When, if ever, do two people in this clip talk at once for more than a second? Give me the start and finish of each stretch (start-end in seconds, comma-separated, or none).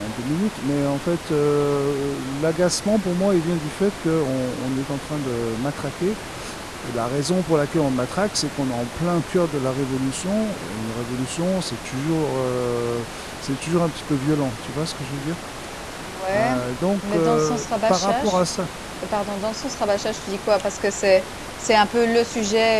17.1-18.4